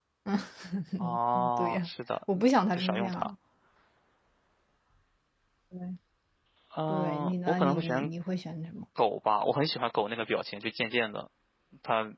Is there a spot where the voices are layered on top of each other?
Yes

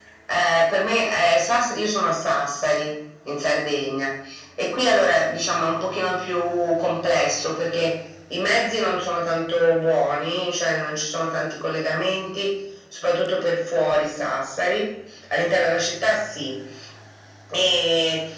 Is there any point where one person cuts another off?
No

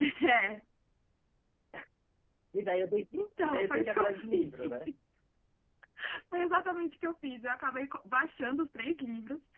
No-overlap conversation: No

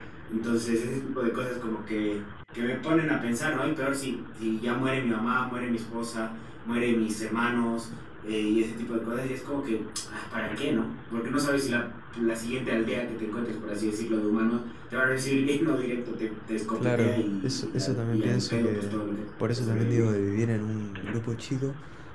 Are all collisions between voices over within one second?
No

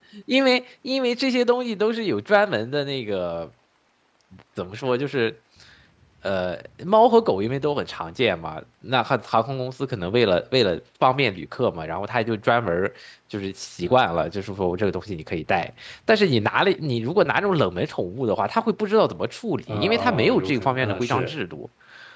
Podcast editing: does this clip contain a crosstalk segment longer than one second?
Yes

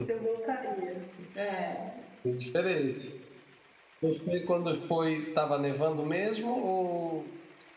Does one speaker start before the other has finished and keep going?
No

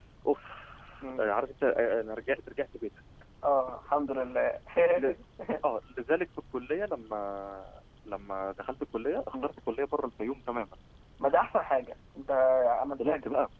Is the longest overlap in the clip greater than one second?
No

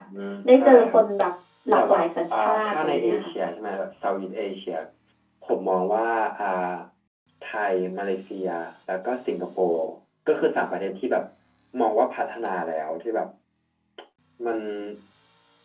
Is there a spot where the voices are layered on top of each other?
Yes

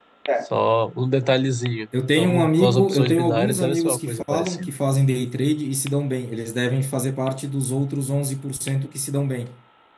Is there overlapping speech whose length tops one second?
Yes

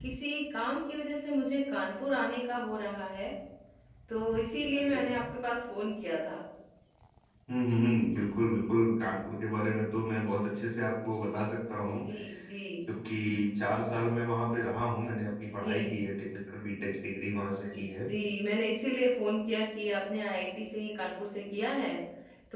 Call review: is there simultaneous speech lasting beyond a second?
No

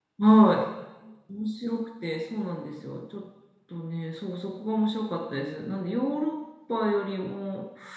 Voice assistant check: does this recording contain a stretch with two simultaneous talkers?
No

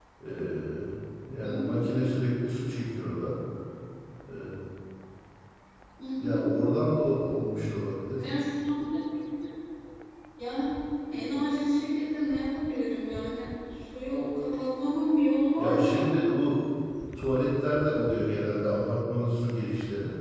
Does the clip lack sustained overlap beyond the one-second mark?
Yes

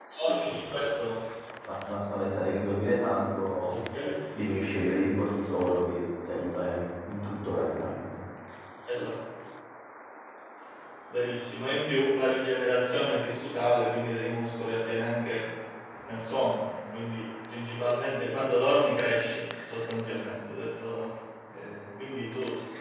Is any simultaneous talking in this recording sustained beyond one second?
No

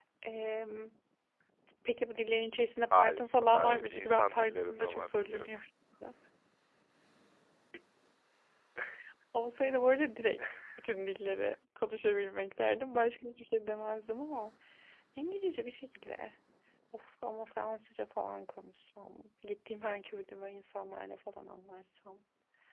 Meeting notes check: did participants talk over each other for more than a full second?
Yes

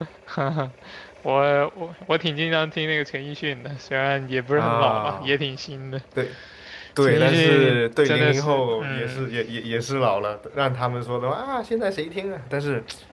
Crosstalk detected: Yes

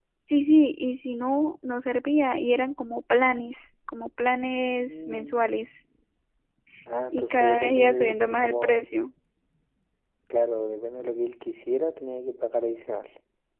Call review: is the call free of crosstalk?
No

